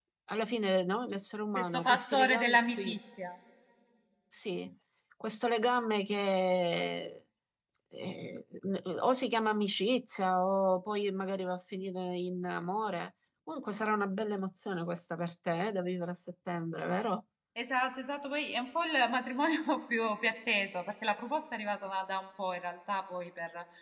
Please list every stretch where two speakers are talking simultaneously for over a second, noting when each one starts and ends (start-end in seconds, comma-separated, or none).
1.6-3.0